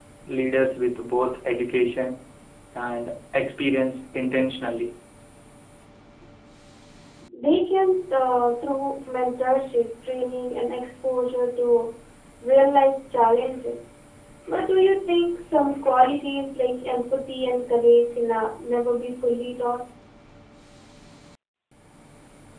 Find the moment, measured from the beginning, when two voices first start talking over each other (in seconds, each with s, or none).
none